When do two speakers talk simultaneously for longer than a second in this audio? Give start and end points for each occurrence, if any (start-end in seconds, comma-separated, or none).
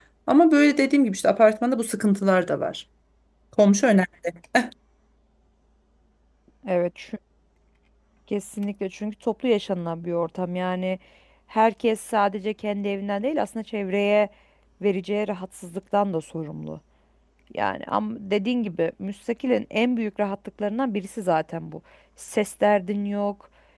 none